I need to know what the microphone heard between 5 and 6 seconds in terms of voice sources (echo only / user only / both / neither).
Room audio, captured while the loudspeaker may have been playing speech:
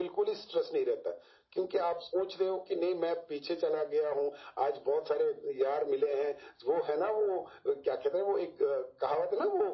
echo only